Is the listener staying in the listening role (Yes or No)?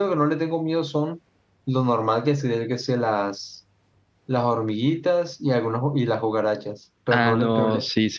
No